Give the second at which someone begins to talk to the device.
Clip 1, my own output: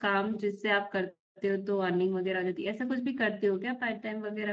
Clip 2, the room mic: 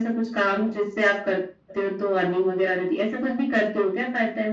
none

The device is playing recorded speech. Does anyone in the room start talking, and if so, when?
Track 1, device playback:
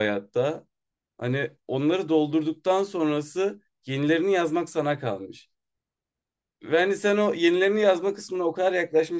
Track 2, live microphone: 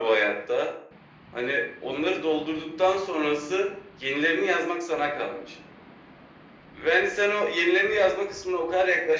none

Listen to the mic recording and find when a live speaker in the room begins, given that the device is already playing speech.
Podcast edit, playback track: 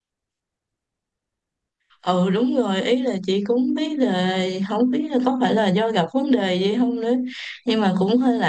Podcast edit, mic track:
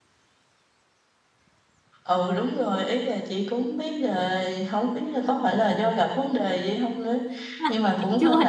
7.6 s

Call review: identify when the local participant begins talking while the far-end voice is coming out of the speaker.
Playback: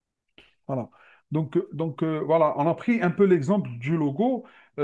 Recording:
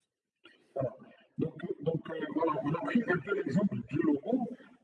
none

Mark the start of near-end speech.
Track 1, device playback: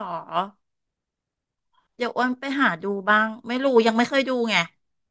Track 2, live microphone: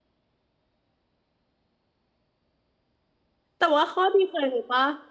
3.6 s

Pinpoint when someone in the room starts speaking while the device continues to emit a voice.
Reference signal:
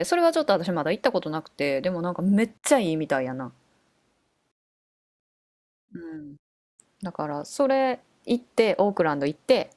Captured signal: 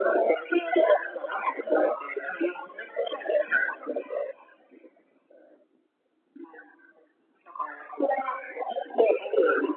none

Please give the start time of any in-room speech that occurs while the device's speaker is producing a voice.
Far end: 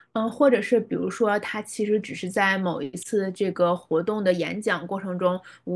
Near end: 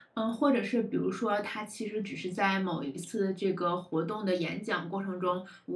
none

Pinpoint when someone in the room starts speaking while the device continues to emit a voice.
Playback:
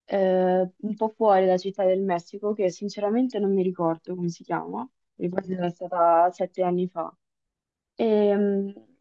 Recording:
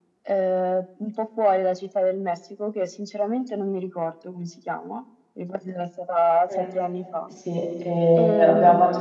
6.4 s

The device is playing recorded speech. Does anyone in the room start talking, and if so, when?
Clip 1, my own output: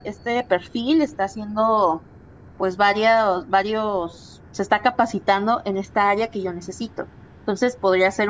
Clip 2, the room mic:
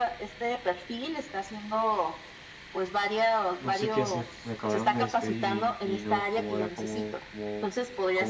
3.6 s

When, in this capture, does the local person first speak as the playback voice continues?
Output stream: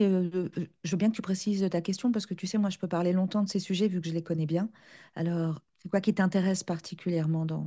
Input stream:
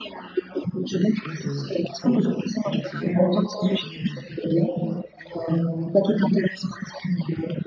1.2 s

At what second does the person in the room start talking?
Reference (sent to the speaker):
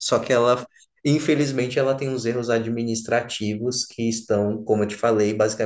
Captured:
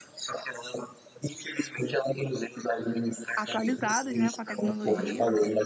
3.4 s

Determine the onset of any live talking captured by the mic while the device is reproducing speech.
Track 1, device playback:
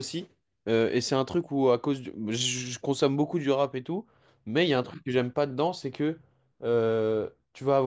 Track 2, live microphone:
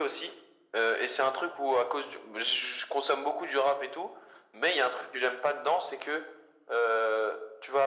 none

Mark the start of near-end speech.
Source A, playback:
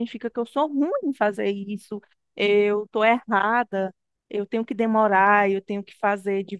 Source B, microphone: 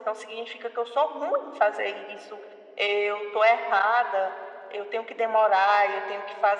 none

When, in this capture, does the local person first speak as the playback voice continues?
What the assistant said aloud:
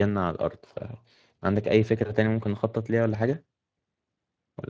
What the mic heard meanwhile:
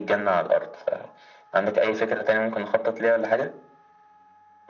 none

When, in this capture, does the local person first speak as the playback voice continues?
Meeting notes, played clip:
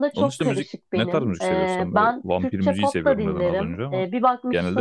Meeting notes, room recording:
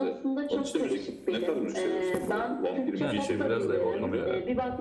3.0 s

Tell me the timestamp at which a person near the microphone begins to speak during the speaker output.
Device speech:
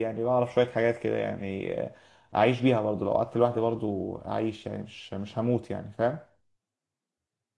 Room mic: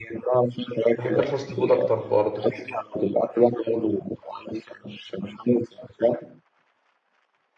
1.0 s

